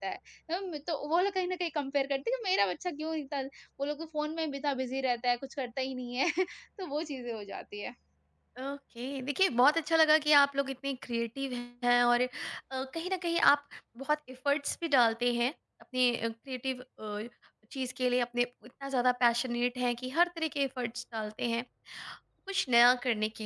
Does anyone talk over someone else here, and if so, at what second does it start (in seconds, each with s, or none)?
none